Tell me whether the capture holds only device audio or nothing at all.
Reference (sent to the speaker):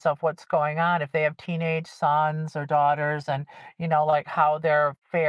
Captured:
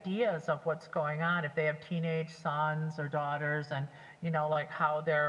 Yes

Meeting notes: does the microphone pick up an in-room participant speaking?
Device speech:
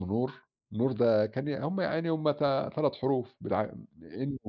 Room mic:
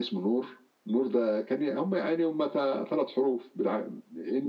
No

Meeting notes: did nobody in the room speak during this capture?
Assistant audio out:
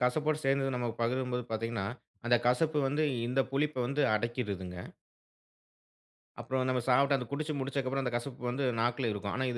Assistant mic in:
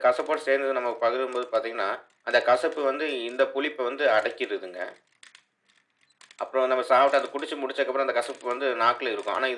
Yes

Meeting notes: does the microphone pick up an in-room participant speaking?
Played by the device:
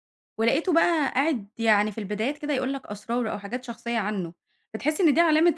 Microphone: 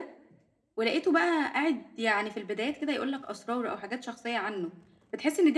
No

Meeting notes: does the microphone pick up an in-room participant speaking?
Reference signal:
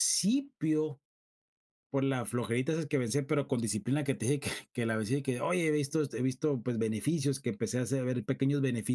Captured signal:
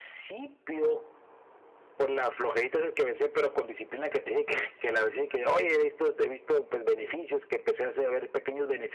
No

